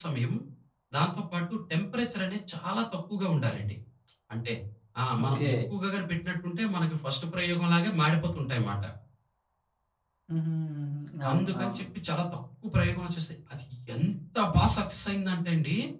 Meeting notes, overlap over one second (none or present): none